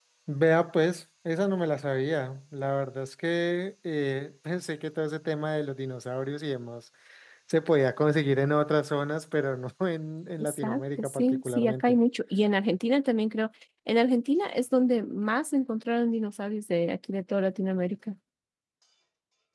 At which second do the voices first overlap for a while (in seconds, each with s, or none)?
10.4 s